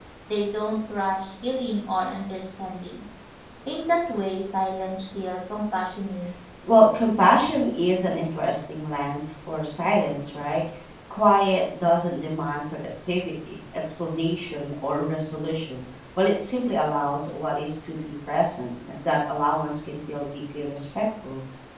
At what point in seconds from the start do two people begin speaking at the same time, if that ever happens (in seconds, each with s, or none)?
none